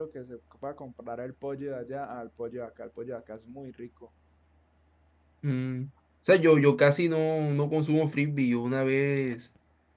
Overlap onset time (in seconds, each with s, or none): none